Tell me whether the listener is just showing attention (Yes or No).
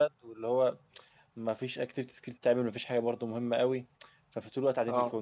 Yes